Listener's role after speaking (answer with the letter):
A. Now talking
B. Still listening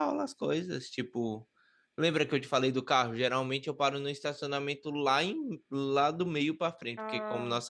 B